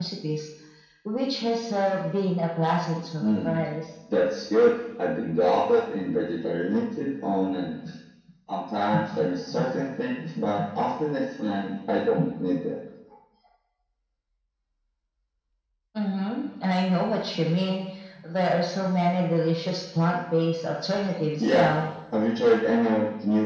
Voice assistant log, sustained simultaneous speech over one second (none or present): none